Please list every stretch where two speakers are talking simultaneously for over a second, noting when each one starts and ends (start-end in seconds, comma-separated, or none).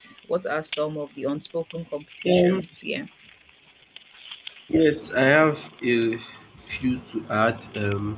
none